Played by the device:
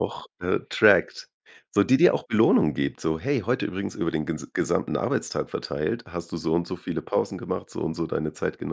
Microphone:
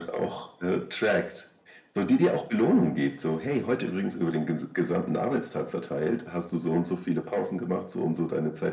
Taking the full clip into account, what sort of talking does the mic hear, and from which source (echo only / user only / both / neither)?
echo only